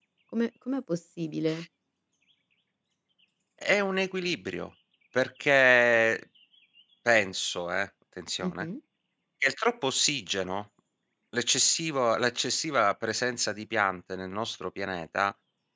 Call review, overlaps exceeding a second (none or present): none